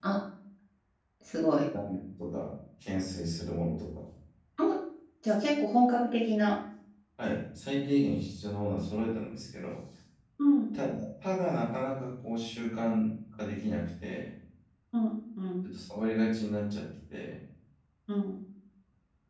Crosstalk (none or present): none